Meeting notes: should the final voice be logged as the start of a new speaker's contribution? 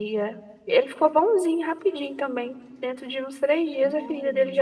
No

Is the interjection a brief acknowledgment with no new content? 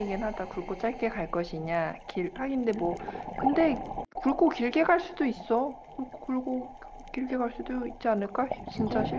No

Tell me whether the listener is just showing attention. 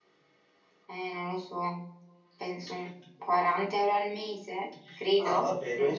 No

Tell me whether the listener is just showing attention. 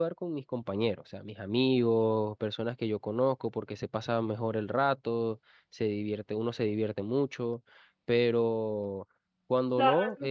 No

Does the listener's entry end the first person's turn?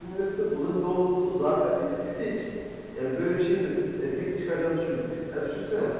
No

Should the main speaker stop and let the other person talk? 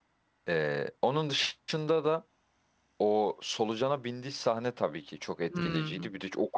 No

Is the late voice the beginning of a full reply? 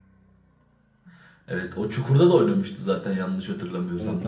Yes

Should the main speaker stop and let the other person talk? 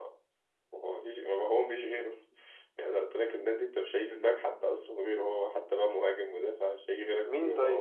Yes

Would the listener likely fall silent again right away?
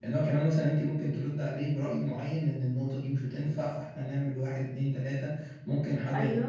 Yes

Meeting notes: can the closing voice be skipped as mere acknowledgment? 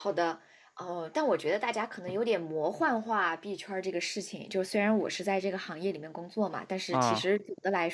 Yes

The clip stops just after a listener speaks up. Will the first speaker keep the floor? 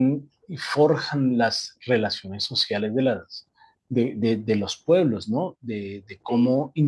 Yes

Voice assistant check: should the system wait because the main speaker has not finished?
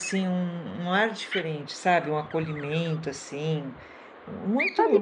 No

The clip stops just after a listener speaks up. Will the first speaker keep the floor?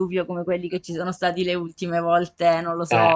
Yes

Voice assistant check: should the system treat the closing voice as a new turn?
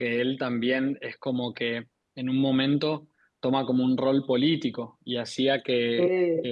No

